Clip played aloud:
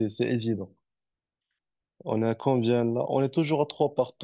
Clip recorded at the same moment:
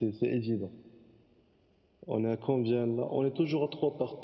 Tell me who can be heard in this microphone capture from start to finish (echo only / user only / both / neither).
echo only